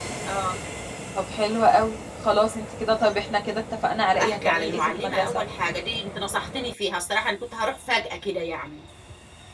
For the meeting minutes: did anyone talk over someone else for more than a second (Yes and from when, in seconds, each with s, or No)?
Yes, from 4.1 s